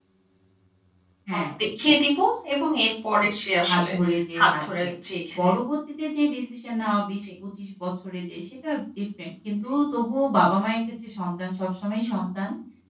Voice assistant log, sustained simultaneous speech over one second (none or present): none